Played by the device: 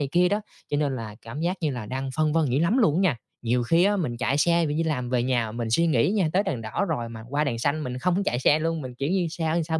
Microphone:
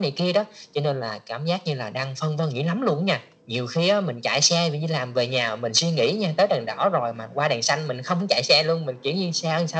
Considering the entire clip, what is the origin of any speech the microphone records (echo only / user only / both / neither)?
echo only